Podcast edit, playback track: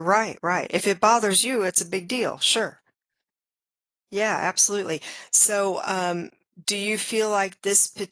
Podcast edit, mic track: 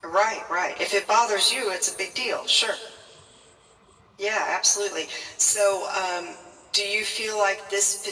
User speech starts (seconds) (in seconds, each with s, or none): none